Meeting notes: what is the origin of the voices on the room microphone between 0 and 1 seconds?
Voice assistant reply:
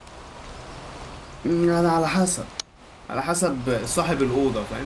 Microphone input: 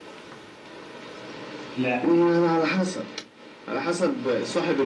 neither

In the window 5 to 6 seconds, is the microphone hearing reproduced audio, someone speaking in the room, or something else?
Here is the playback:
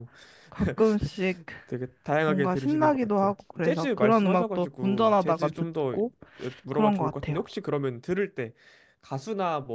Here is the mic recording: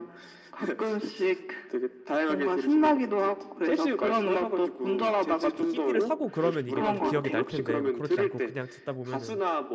both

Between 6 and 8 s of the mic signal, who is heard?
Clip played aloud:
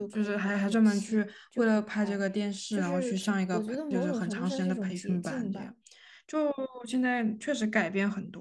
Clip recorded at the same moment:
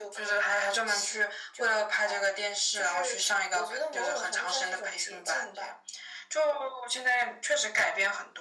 echo only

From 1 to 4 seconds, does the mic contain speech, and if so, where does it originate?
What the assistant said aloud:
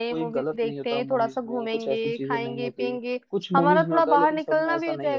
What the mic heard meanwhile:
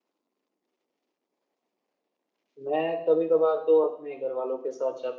user only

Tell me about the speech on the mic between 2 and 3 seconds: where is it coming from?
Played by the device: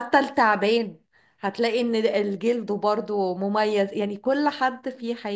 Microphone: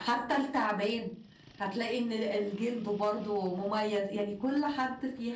echo only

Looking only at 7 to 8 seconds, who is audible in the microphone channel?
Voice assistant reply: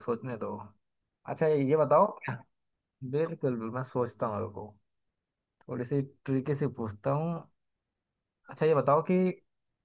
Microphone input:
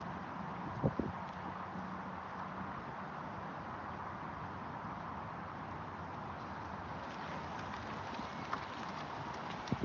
neither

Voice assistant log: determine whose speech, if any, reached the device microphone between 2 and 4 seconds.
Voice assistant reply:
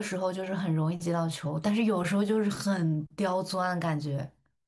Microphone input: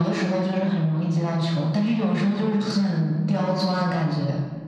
echo only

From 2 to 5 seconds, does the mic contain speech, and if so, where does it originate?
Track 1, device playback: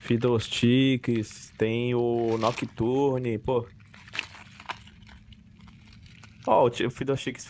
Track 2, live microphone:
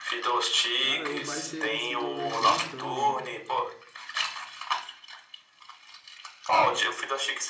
both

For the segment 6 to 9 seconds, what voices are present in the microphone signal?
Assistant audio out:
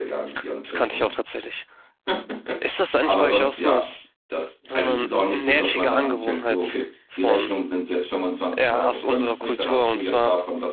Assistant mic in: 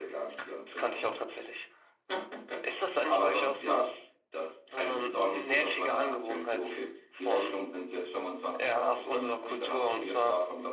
echo only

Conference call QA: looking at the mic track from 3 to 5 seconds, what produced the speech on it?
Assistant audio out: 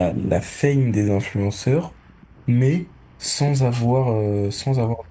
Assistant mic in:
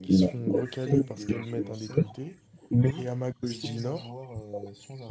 both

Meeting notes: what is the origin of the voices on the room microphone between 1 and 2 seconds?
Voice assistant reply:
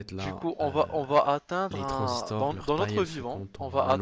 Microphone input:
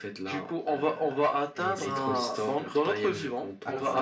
both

